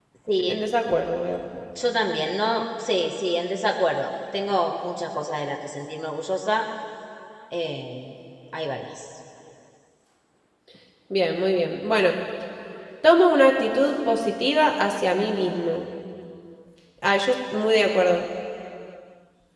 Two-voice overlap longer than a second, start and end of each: none

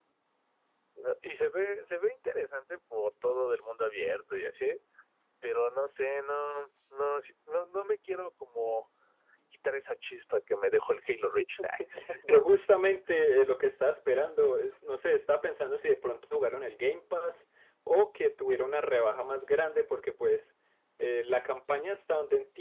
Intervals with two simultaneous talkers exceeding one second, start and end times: none

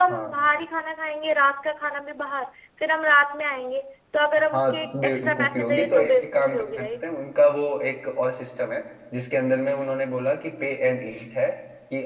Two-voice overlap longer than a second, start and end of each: 4.5-7.0

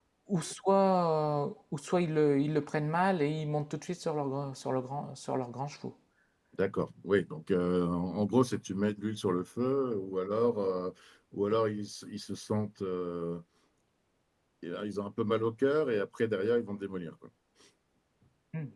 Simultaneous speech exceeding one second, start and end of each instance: none

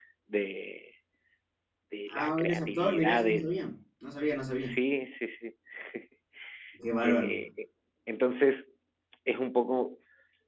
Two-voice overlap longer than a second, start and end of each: 2.1-3.5

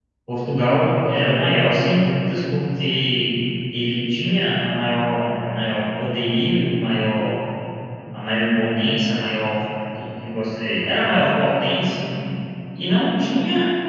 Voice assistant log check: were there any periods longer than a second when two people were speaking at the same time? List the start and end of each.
none

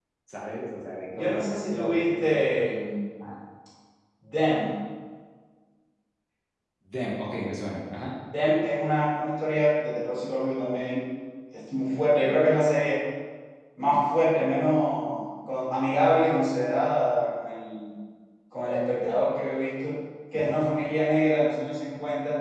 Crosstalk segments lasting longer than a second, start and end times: 1.1-2.6

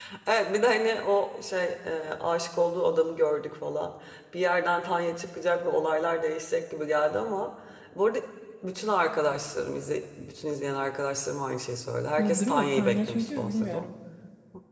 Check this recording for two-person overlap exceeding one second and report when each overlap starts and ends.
12.2-13.9

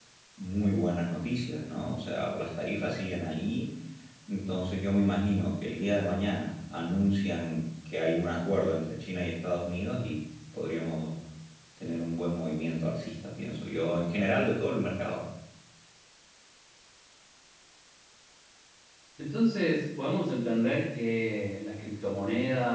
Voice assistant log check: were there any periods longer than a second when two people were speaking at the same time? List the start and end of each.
none

